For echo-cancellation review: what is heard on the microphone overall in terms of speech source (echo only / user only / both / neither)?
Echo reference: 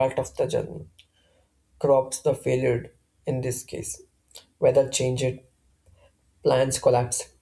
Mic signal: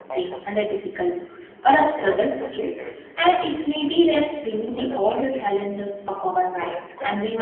both